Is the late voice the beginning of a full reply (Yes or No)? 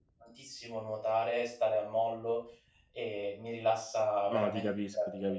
Yes